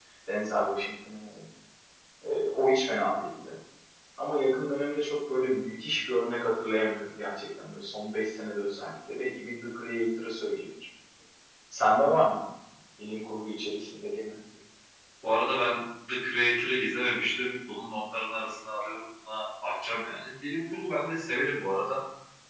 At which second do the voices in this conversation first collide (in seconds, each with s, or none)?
none